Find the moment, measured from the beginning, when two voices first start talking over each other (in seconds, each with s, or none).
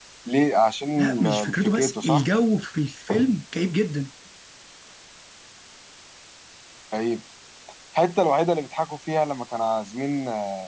1.0 s